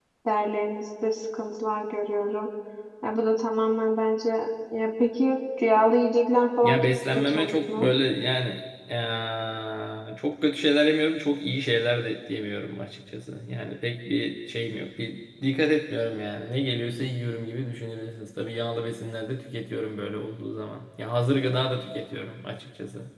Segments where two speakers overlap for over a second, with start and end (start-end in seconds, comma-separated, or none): 6.6-7.9